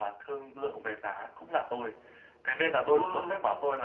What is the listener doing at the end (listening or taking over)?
listening